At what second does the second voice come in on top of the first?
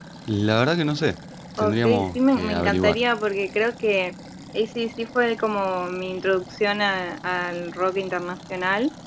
2 s

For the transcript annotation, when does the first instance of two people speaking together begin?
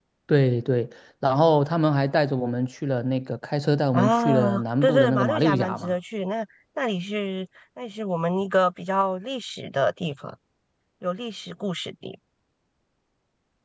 4 s

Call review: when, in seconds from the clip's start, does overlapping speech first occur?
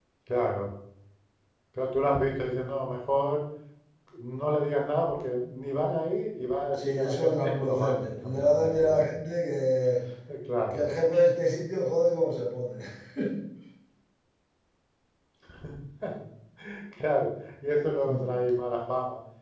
7 s

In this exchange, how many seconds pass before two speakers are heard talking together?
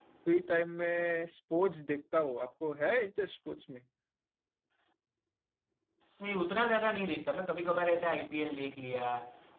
none

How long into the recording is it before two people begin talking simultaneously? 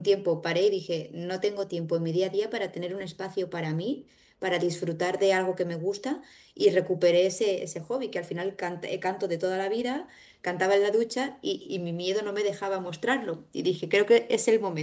none

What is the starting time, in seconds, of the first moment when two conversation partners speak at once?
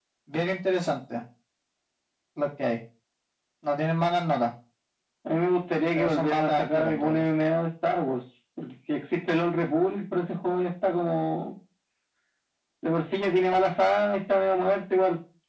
6 s

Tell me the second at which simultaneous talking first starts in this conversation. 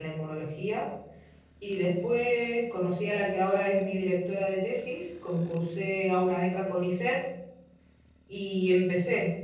none

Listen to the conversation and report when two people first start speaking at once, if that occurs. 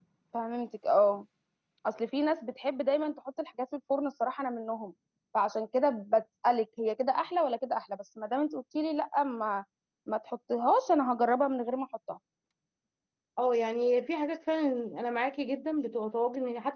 none

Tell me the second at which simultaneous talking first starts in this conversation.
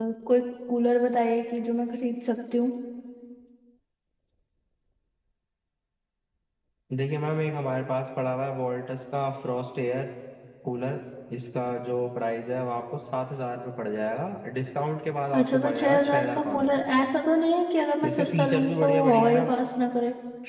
15 s

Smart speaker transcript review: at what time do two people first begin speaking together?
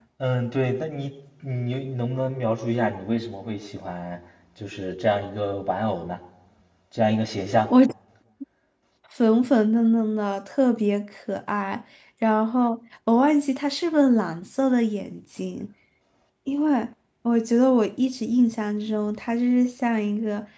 none

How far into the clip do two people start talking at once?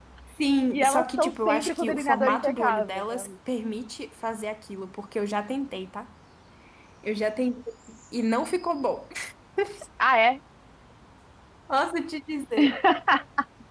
1 s

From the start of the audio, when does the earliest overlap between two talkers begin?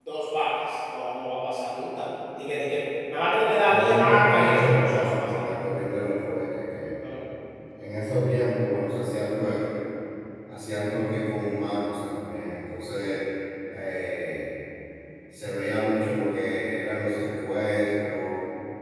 4 s

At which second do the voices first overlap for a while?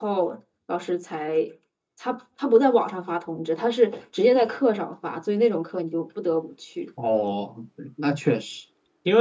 none

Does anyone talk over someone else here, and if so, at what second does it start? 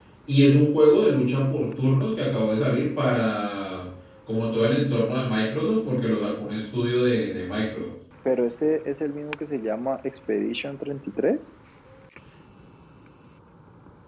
none

